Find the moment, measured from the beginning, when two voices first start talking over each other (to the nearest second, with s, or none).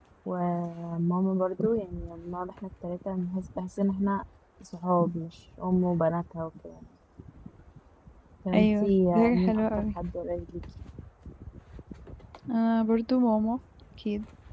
9 s